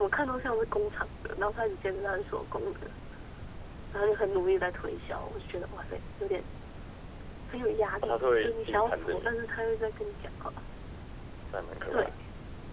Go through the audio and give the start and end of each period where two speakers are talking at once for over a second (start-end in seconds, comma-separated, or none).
8.0-9.3